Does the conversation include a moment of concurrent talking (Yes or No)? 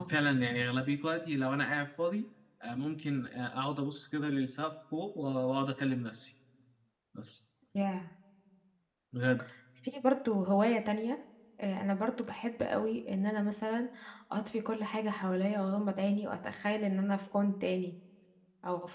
No